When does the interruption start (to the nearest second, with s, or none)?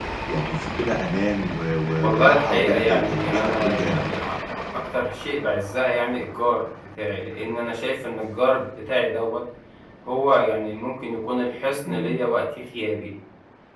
2 s